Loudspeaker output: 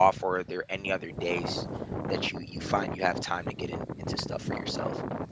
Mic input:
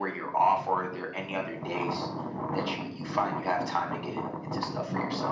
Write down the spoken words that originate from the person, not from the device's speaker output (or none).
none